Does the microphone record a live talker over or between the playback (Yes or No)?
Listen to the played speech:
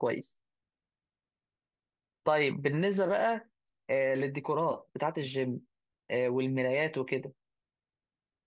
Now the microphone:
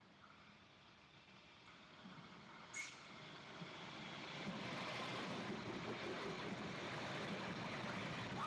No